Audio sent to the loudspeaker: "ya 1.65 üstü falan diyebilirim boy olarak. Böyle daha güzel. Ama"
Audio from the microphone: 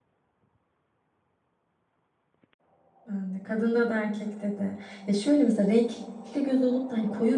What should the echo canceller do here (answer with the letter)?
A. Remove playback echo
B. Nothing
B